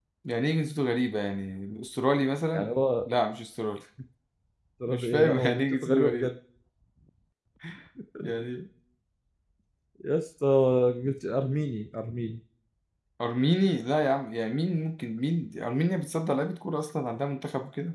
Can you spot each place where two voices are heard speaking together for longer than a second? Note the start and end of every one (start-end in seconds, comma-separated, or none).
4.9-6.3